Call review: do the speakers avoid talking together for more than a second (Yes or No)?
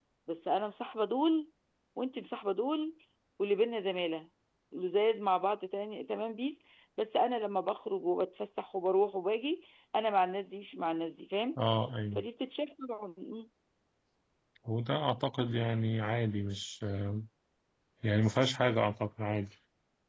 Yes